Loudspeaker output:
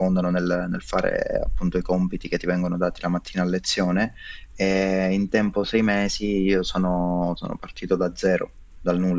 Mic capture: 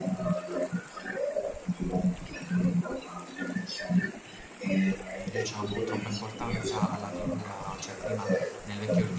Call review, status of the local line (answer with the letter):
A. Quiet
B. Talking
B